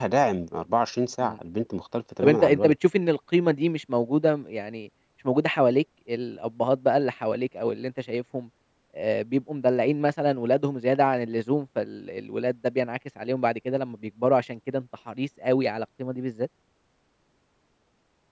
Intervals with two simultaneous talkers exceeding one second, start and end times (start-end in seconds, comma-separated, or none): none